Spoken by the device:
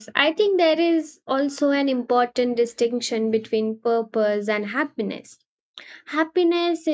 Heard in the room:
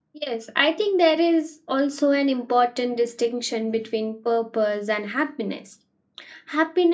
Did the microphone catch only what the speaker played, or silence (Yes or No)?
Yes